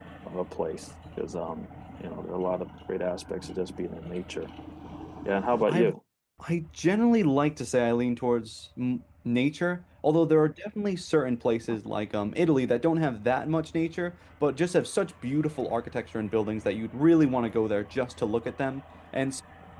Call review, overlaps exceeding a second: none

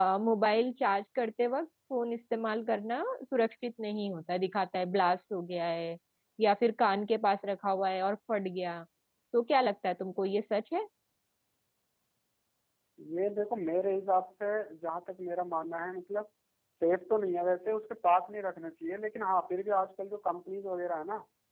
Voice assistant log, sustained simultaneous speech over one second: none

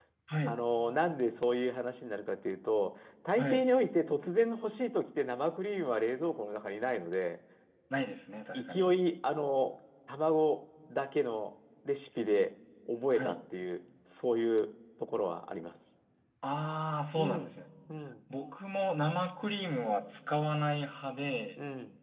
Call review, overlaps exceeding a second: none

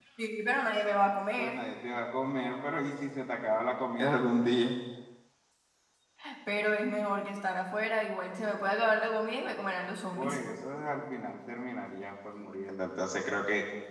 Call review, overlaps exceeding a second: none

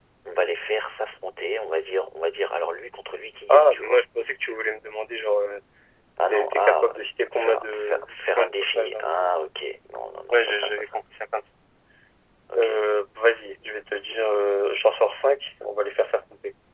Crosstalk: present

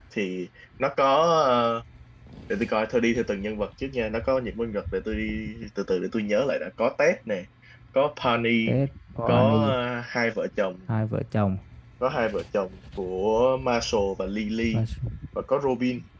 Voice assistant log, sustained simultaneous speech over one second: none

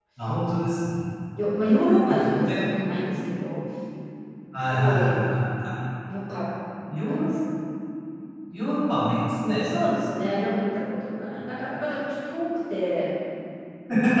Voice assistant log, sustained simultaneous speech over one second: none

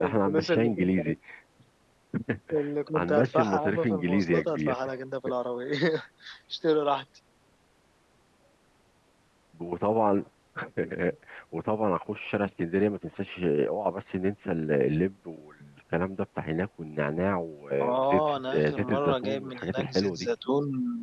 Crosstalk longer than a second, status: present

